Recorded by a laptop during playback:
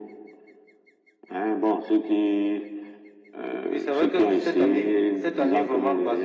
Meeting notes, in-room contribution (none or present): none